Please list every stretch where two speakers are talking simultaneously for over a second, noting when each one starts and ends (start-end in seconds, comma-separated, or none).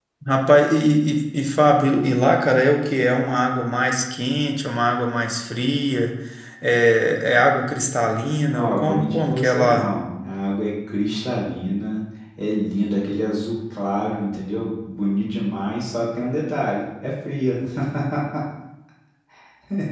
8.5-9.9